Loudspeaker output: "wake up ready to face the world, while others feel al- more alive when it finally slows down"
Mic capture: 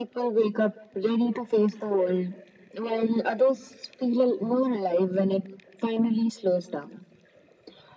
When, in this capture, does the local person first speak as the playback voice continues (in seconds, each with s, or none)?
none